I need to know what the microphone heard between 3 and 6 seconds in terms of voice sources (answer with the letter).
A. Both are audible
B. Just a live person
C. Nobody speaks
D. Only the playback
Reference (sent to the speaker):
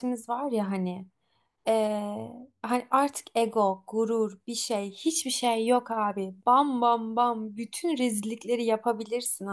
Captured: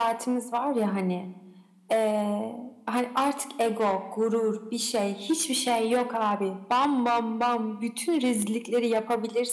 D